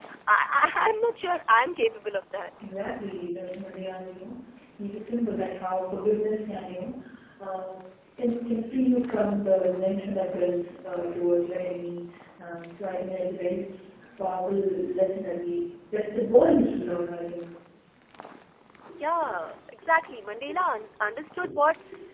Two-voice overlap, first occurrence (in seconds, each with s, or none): none